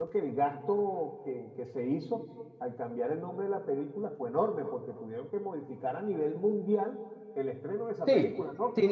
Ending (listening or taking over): taking over